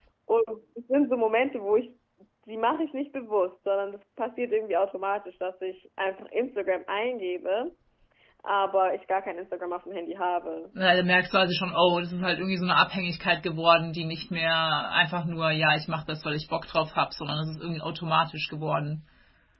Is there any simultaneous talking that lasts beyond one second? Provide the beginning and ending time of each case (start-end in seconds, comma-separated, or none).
none